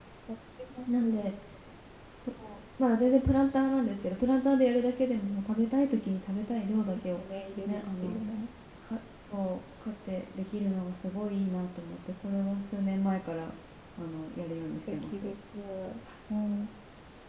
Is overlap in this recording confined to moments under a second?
Yes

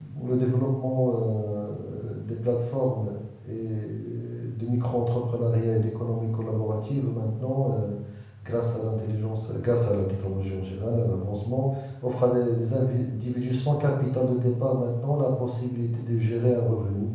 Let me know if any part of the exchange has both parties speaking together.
No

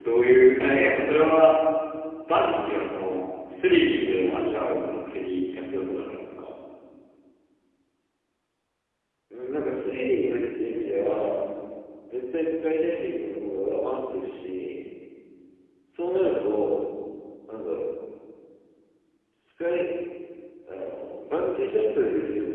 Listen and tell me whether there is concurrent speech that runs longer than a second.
No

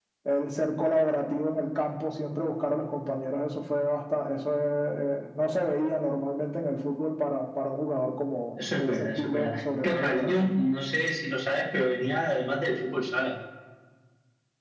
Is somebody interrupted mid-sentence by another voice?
Yes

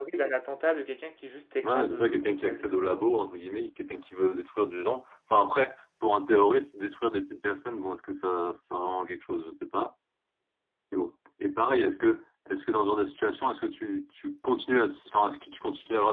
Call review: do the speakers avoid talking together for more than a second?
No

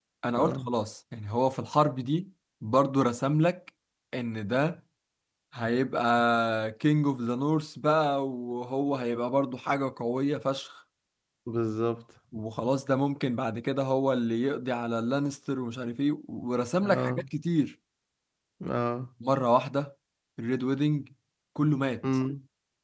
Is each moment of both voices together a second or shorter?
Yes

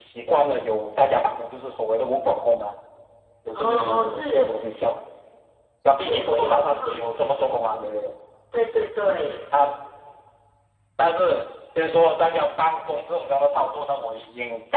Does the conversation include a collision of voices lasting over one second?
Yes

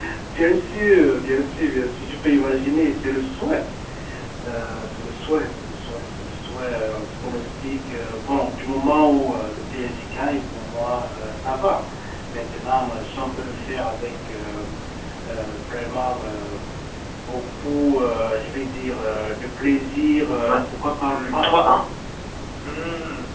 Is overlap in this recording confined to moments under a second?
Yes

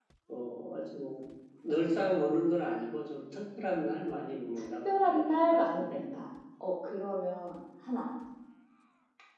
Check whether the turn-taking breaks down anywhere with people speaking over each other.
Yes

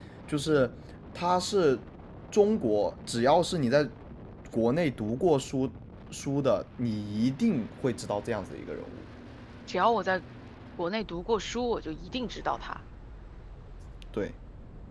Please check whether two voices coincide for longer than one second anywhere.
No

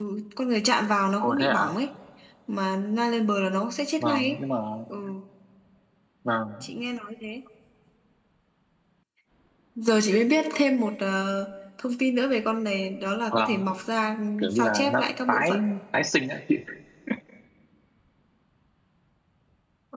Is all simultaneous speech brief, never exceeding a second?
No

